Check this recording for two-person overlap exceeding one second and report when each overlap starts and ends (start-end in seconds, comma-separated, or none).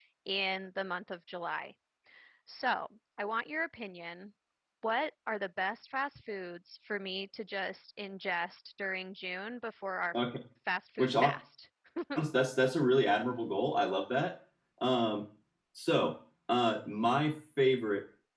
none